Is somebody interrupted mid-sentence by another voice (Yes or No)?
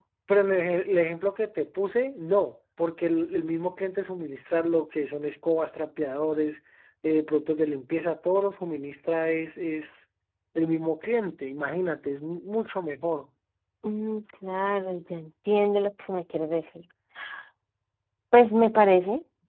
No